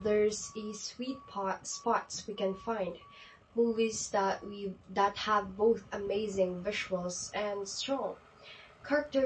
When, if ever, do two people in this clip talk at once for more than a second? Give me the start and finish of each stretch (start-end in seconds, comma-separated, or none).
none